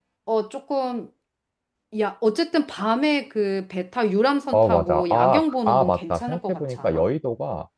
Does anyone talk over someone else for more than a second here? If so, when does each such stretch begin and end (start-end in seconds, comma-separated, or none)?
4.5-7.0